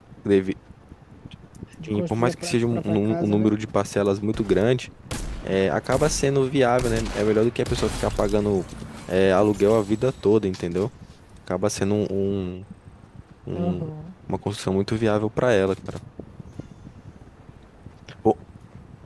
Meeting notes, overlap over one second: present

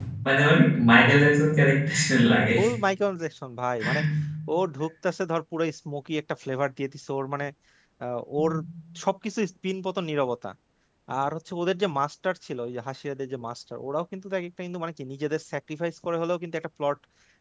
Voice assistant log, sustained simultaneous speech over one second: none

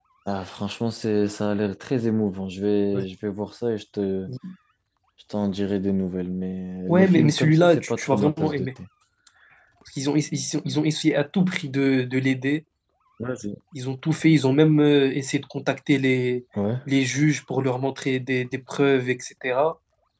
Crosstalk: present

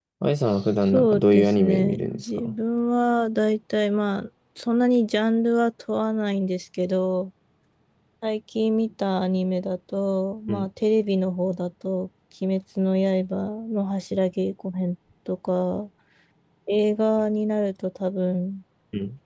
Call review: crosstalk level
present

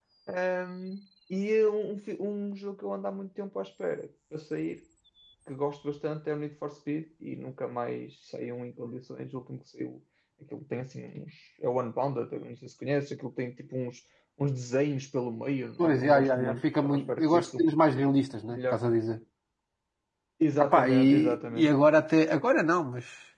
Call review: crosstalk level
present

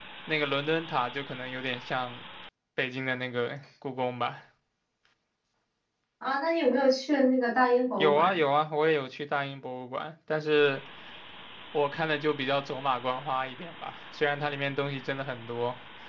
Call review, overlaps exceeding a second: none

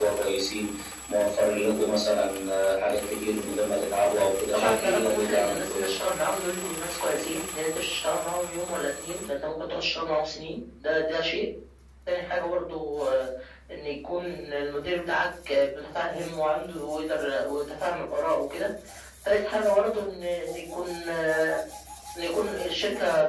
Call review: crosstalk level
present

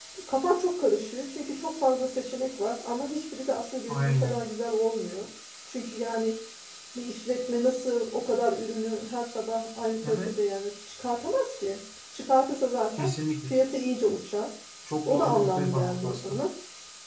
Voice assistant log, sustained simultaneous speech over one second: present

